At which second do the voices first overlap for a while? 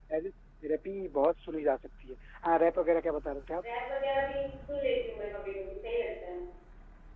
none

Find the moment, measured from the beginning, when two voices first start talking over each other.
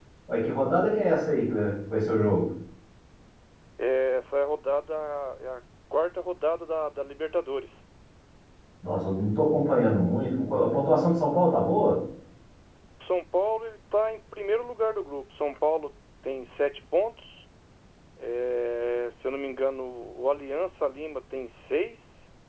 none

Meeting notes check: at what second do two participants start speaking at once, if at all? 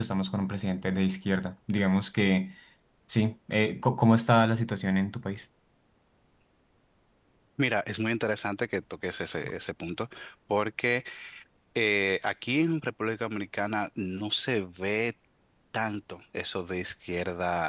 none

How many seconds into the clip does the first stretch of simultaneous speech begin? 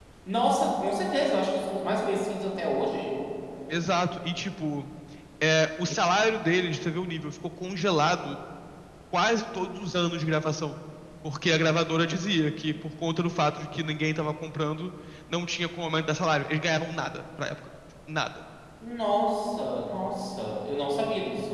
none

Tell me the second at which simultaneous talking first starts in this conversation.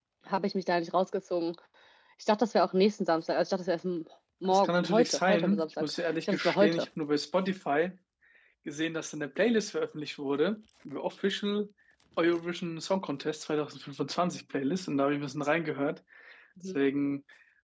4.5 s

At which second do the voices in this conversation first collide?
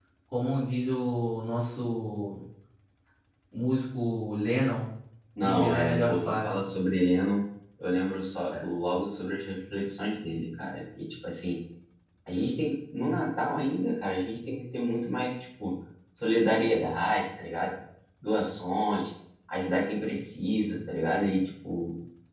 5.4 s

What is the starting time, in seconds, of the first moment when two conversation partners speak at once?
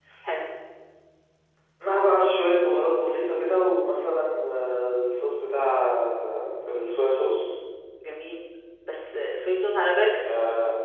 none

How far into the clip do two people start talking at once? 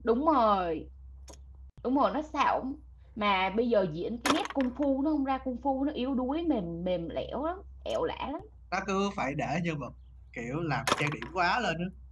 none

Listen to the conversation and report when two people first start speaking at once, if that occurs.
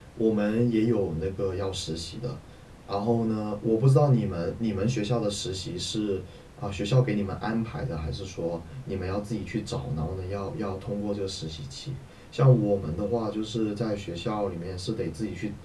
none

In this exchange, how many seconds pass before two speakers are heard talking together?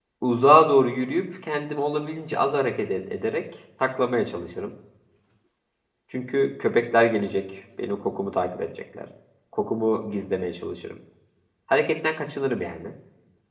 none

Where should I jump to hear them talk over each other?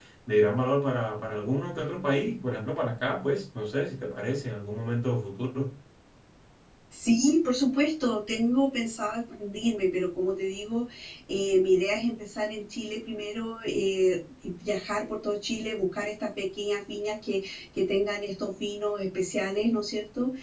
none

